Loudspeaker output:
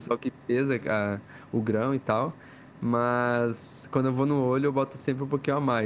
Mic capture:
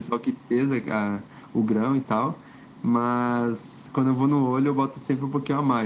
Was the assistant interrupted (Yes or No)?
No